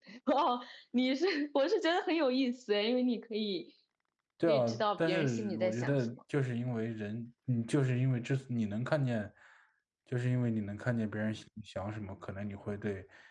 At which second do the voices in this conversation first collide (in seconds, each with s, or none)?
4.5 s